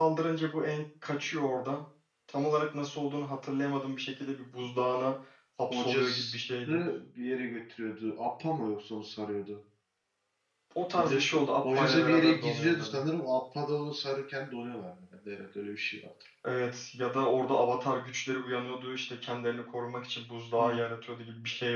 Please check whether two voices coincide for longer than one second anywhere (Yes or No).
Yes